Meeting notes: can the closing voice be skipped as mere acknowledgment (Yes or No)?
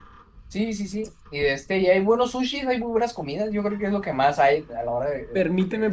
No